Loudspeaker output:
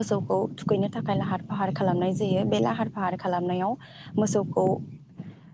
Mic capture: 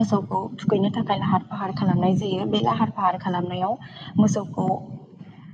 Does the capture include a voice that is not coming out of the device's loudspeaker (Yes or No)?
No